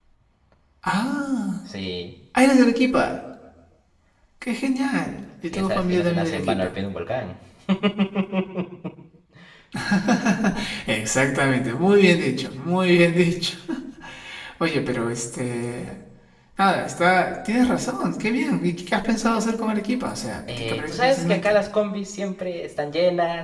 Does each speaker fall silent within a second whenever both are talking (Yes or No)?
No